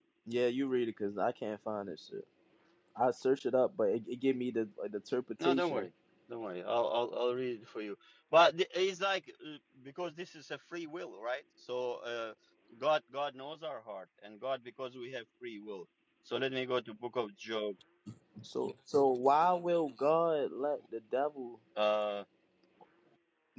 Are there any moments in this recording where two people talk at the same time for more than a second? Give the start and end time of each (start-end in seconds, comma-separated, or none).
none